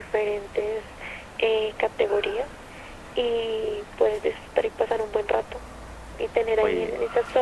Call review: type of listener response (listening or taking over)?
listening